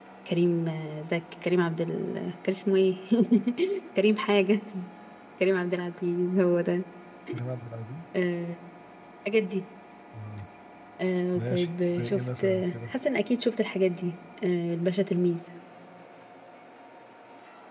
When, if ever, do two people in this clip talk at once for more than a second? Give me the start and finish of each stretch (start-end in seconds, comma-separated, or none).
11.3-12.9